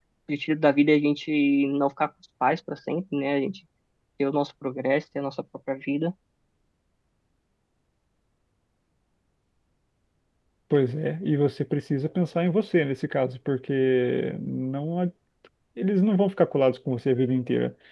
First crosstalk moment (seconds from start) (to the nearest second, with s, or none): none